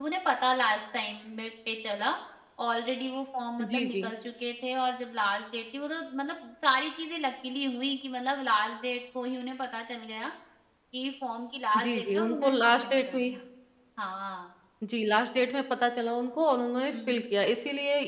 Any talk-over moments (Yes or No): Yes